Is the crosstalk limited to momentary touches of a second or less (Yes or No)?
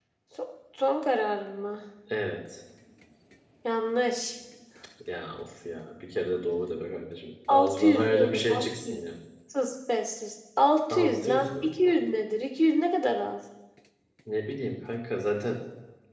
No